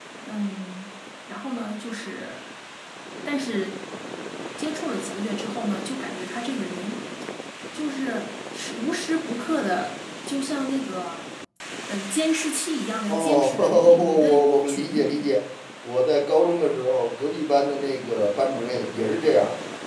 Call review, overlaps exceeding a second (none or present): present